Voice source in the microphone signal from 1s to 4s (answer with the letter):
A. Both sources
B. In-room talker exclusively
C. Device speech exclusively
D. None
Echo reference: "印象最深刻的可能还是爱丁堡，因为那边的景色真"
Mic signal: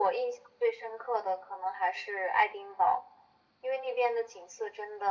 C